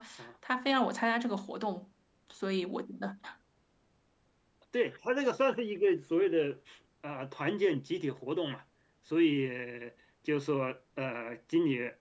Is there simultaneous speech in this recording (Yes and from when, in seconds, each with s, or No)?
No